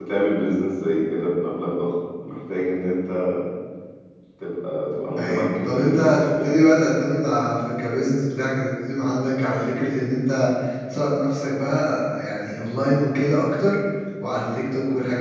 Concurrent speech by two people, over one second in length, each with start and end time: 5.2-6.5

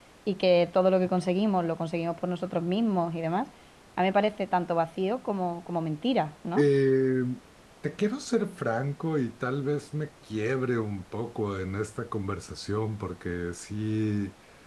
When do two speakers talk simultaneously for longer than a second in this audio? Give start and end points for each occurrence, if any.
none

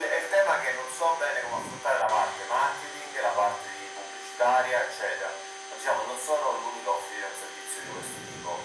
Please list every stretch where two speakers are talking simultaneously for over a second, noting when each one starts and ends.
none

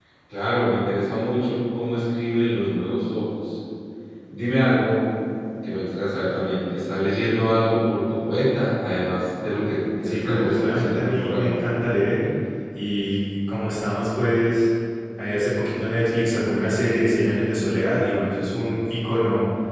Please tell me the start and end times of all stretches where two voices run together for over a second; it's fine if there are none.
10.0-11.5

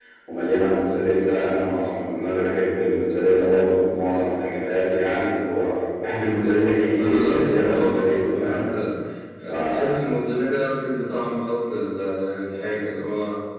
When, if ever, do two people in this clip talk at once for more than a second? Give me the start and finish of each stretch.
7.0-8.6

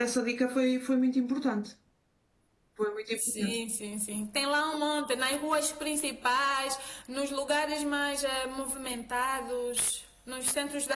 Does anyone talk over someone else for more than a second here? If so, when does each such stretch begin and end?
none

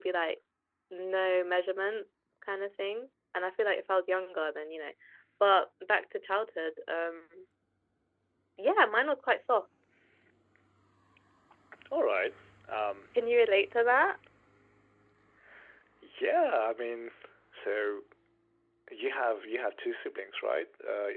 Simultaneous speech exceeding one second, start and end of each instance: none

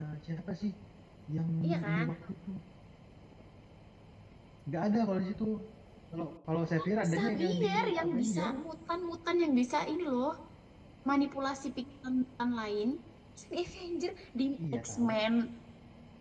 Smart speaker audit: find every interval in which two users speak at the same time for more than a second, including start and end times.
6.8-8.5

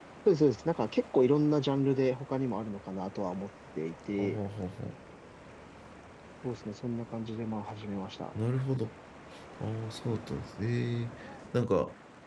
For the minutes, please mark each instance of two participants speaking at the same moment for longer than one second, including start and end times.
none

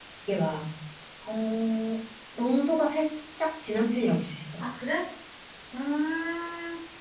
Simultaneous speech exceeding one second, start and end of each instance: none

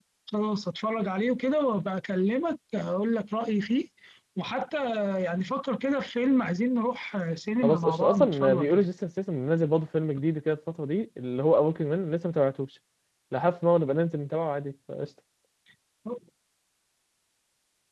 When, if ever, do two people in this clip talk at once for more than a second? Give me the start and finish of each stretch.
7.6-8.8

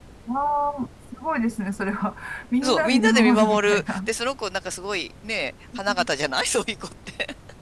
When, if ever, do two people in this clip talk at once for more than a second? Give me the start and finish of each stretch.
2.6-4.1

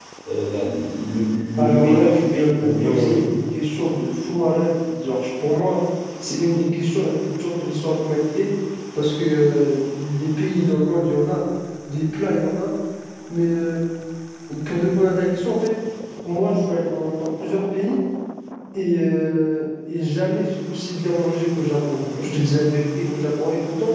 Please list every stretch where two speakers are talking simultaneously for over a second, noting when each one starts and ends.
1.6-3.3

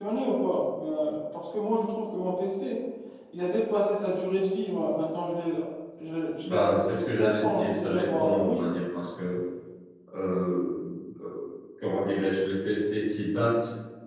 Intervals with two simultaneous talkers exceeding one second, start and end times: 6.4-8.6

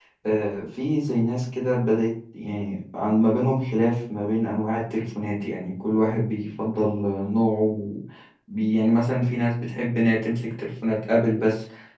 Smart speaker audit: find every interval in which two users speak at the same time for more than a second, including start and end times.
none

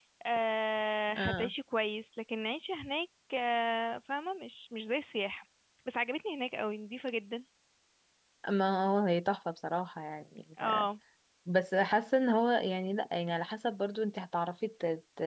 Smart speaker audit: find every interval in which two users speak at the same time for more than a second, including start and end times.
none

